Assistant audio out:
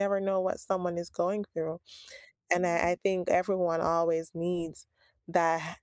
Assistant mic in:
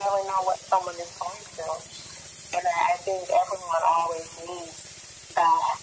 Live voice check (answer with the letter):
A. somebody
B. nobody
B